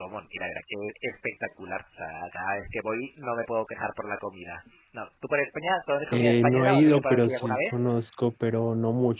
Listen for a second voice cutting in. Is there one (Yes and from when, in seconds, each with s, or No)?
Yes, from 6.1 s